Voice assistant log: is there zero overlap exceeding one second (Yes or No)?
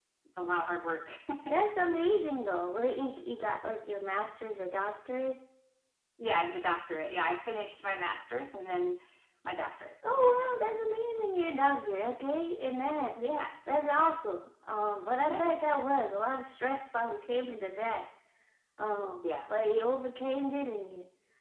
Yes